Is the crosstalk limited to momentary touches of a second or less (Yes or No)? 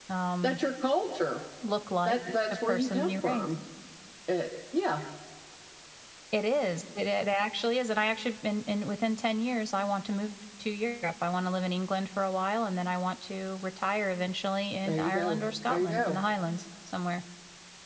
No